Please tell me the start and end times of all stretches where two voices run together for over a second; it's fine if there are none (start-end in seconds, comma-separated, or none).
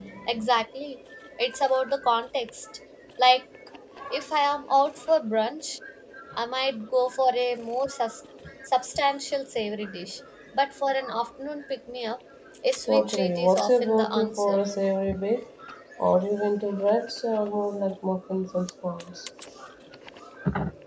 12.9-14.6